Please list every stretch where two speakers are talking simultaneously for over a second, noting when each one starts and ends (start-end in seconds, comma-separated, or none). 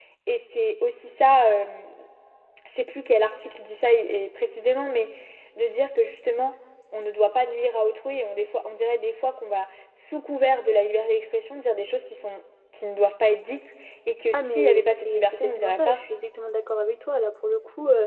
14.3-16.0